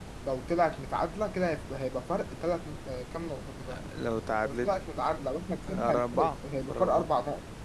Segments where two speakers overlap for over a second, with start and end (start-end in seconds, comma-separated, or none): 5.7-7.1